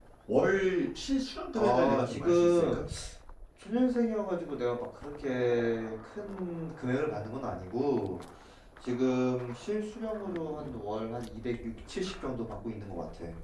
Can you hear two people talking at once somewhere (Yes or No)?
Yes